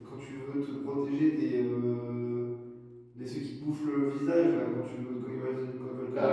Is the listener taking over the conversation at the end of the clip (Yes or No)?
Yes